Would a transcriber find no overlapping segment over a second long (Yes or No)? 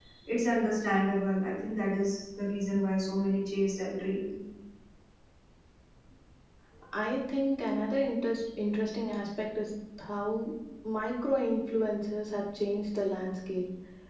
Yes